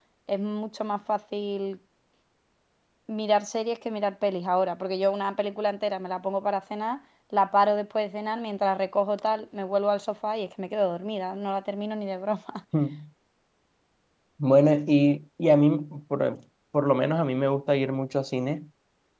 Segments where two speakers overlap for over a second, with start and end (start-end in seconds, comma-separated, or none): none